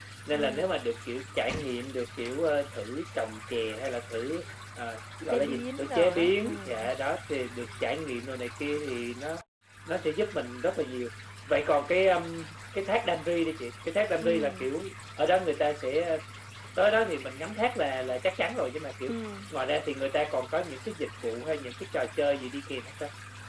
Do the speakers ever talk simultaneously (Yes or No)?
Yes